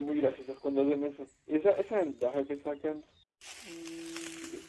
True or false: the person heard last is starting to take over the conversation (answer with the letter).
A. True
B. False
A